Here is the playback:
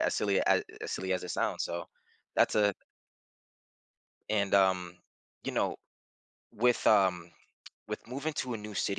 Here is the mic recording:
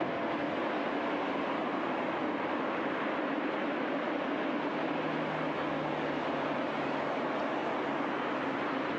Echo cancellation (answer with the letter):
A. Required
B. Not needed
B